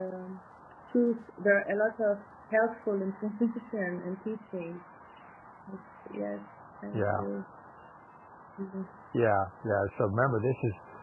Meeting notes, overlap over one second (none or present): none